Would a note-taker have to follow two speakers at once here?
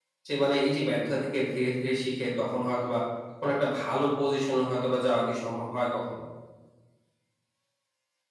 No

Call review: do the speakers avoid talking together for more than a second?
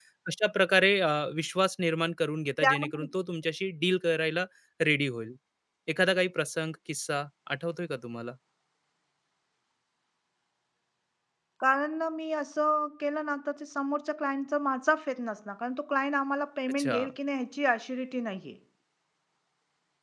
Yes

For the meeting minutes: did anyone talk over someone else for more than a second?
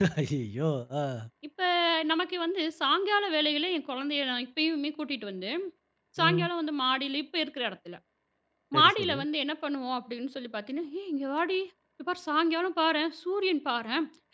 No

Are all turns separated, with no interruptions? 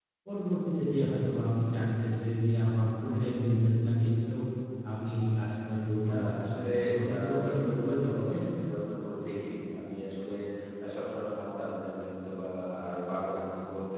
No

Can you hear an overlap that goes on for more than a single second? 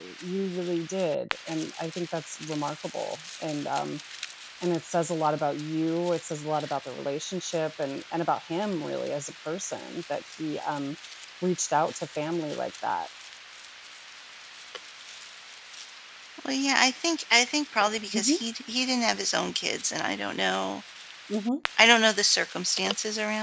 No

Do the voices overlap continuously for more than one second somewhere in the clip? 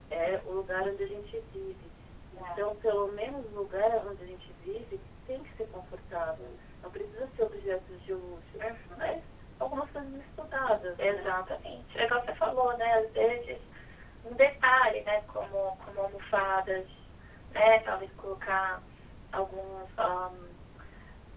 No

